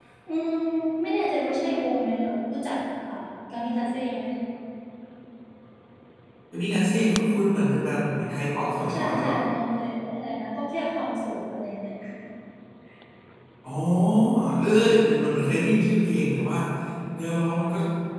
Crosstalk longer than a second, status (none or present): none